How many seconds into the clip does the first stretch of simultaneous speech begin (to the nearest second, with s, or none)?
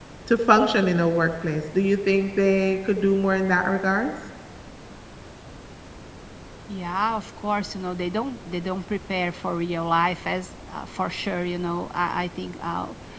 none